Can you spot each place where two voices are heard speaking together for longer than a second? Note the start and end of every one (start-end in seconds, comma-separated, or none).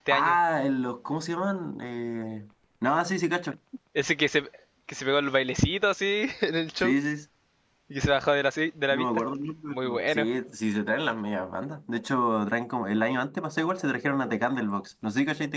none